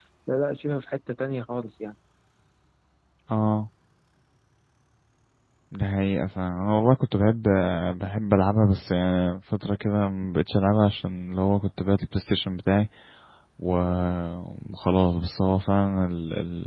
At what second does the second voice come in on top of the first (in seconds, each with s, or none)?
none